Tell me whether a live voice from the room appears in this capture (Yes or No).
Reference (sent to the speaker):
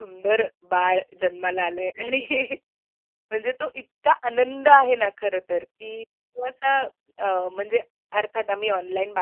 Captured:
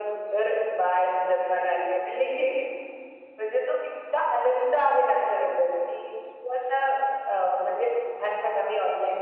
No